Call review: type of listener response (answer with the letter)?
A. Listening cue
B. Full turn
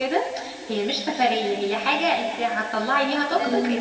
A